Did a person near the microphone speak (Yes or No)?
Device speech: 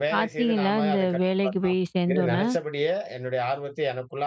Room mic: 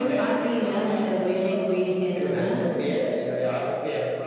No